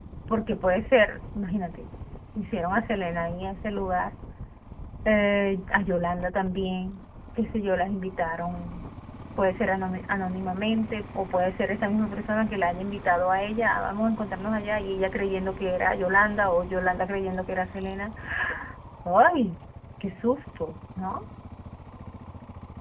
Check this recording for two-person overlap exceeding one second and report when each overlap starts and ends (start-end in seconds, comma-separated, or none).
none